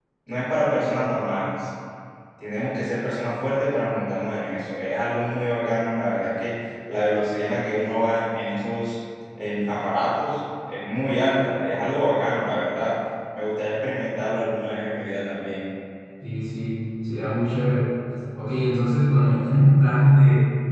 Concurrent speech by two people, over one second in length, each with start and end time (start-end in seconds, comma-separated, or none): none